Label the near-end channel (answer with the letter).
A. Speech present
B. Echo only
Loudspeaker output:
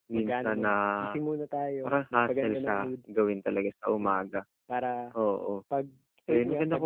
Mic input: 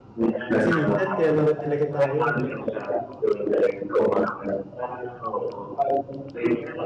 A